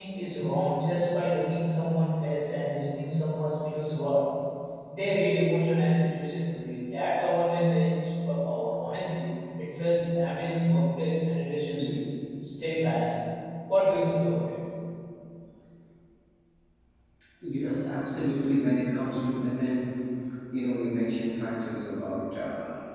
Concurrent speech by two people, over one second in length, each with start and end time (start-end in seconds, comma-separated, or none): none